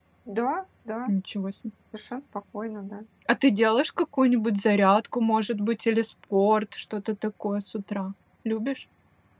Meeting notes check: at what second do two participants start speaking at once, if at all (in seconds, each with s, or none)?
none